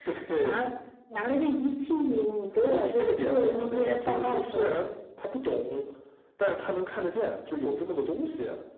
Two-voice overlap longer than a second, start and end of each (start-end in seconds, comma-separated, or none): 2.6-4.8